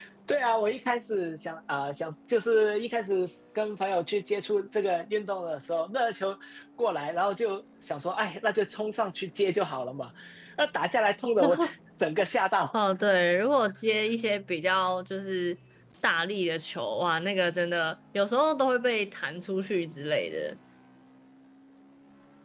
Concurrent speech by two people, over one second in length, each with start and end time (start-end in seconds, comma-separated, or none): none